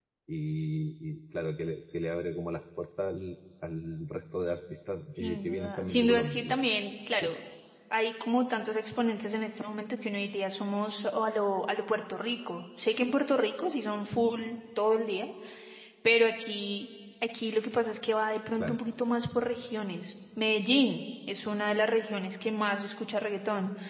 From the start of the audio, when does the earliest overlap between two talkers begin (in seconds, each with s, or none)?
5.2 s